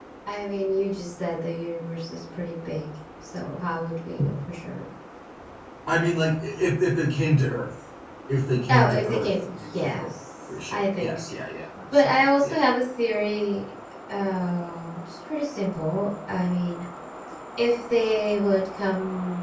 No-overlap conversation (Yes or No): No